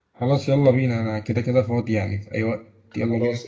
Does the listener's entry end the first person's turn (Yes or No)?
Yes